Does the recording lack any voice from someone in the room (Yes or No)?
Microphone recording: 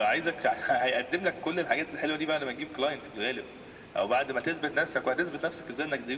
Yes